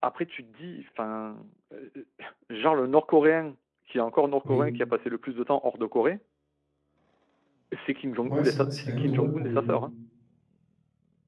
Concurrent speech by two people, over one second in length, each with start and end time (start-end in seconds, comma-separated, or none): 8.3-9.7